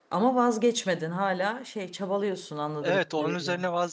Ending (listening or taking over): taking over